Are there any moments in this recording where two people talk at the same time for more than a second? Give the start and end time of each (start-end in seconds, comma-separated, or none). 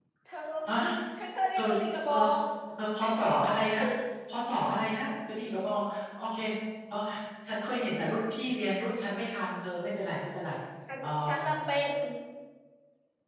none